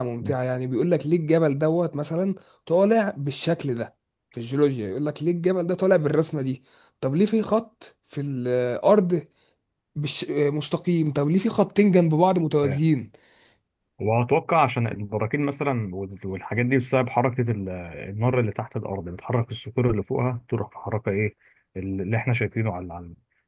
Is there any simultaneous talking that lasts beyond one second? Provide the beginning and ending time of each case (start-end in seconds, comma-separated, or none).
none